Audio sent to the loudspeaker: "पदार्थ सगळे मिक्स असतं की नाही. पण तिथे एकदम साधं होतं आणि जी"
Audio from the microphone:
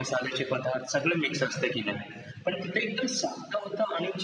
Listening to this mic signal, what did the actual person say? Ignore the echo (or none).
none